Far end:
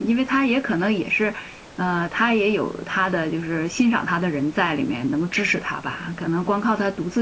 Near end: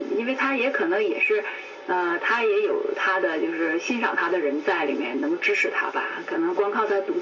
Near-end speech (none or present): none